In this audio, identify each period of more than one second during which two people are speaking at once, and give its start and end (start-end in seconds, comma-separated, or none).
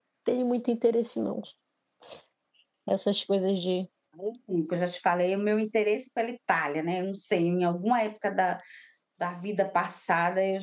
none